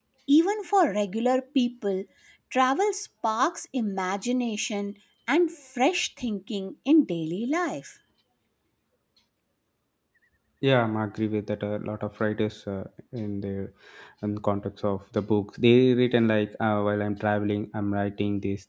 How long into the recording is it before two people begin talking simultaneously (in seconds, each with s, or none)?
none